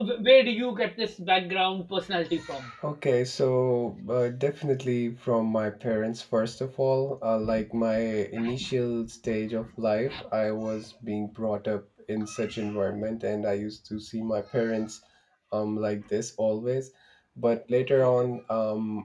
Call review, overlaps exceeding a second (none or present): none